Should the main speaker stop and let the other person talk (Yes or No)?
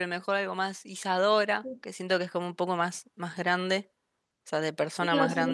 Yes